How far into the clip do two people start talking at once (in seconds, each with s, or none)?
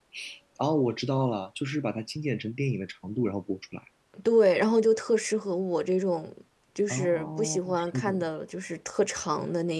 6.9 s